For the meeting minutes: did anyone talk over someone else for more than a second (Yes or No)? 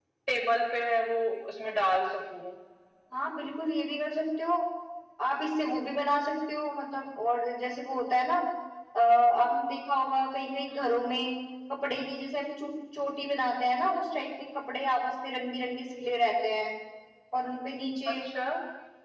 No